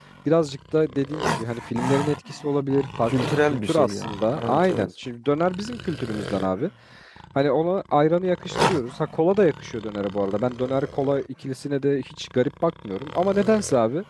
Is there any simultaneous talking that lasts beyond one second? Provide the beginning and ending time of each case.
3.0-4.9

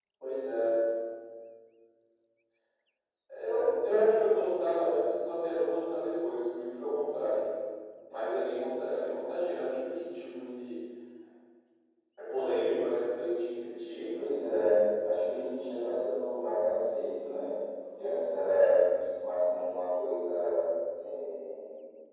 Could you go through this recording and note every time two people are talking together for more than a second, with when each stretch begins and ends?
none

